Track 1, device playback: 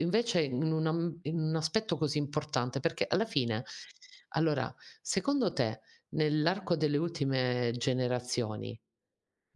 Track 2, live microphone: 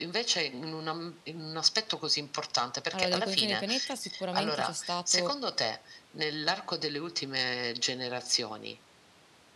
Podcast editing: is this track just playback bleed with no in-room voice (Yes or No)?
No